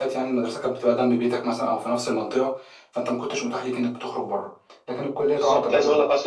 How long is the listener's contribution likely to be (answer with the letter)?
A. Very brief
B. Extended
B